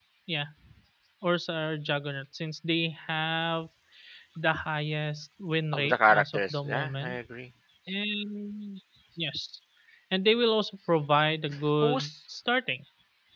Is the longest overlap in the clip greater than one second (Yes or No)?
Yes